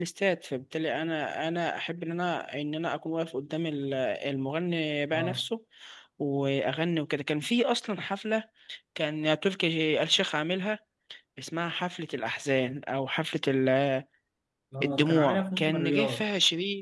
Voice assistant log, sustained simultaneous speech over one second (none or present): present